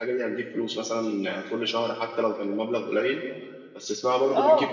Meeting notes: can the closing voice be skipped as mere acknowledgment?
No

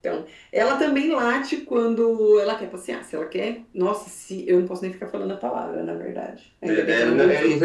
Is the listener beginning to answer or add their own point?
Yes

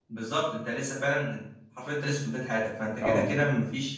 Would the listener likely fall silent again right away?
Yes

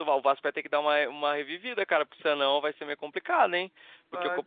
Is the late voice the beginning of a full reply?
No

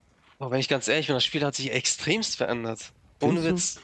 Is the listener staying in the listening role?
No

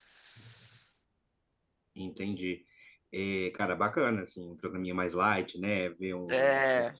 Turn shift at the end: No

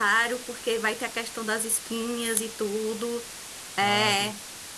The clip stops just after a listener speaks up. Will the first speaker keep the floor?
Yes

